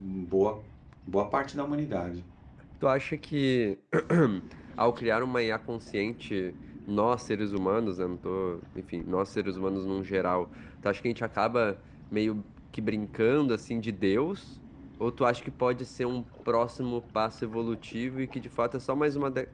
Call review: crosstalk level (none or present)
none